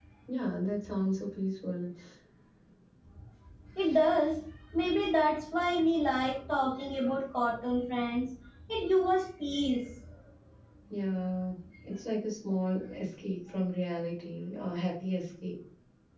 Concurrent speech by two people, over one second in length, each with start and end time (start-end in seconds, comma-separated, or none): none